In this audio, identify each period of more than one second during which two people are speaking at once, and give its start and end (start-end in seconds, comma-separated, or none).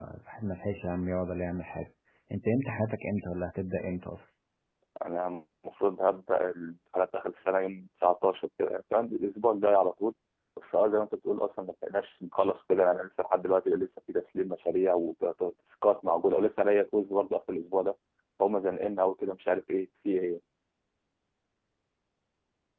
none